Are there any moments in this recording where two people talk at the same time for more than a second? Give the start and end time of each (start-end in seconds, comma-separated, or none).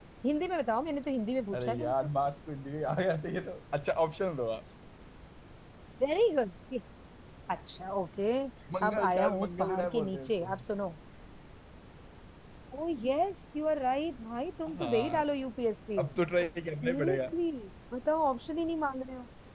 8.9-10.5